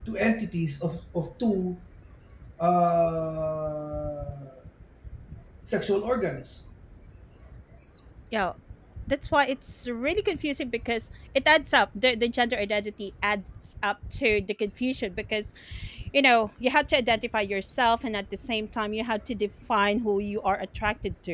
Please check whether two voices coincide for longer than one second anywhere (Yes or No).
No